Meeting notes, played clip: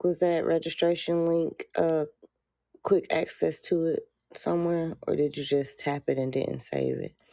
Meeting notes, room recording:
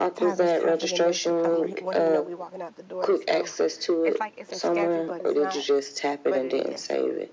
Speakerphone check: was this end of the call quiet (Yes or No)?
No